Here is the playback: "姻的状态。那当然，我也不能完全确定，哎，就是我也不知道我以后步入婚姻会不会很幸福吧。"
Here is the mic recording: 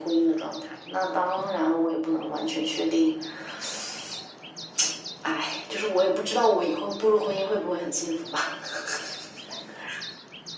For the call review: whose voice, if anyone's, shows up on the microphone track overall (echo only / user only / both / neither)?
echo only